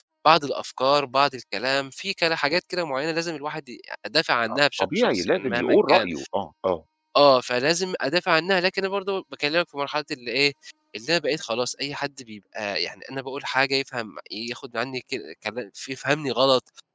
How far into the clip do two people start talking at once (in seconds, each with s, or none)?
4.5 s